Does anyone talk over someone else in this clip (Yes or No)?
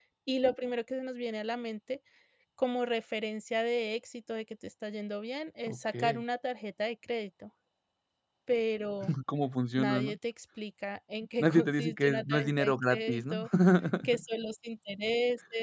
Yes